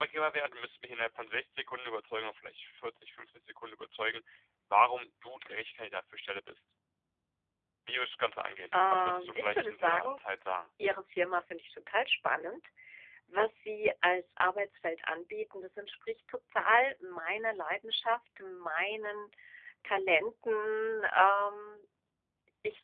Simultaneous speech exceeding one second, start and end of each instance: 8.9-10.2

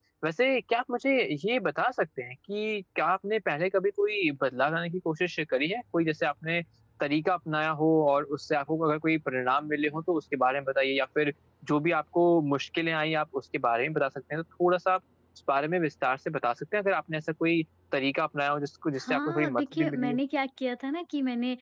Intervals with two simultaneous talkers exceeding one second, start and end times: 19.0-20.2

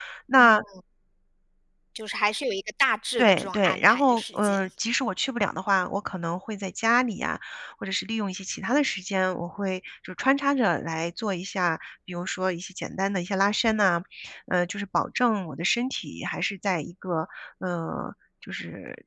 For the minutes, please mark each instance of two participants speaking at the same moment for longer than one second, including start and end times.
3.2-4.7

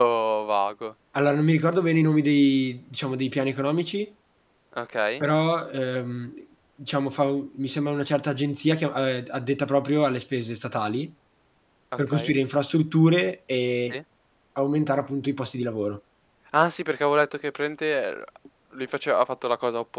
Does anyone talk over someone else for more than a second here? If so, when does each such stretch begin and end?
none

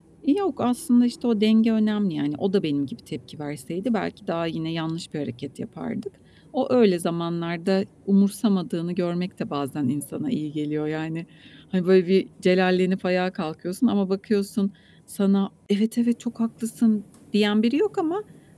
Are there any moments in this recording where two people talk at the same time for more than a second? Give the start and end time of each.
none

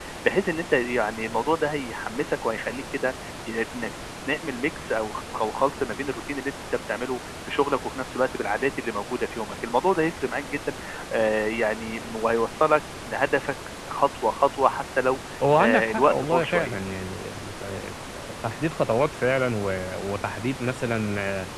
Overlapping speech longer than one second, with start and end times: 15.6-16.8

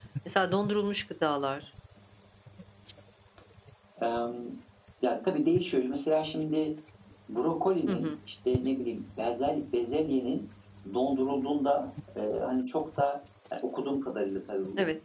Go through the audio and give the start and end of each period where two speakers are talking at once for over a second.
none

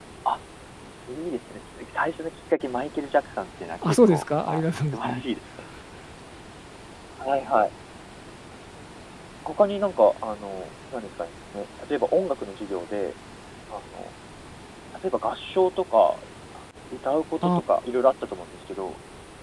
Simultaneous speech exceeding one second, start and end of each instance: 3.8-5.2

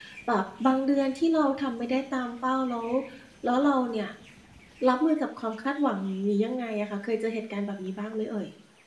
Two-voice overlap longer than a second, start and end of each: none

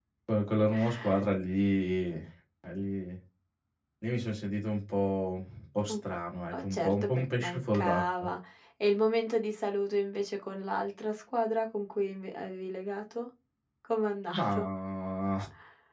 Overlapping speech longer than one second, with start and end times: 6.5-8.3

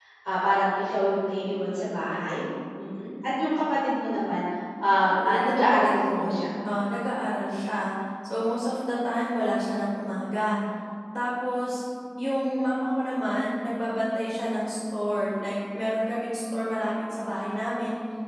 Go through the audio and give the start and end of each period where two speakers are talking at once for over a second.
5.0-6.4

